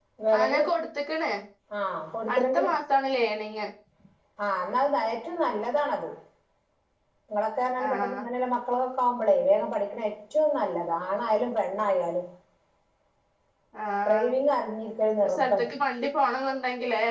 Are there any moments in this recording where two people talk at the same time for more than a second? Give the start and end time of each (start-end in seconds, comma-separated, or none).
none